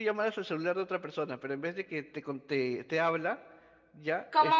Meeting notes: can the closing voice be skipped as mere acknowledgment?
No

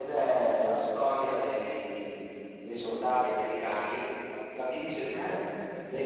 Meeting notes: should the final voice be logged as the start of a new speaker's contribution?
No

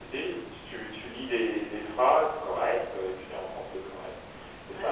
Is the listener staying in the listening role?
Yes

